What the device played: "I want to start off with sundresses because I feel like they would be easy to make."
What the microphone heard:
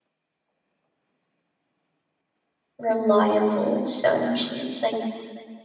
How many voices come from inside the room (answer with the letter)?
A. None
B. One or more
B